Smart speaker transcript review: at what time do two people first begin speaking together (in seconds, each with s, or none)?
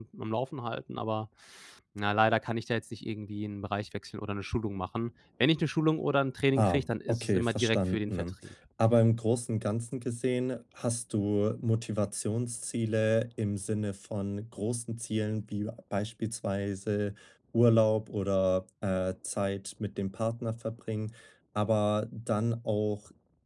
6.6 s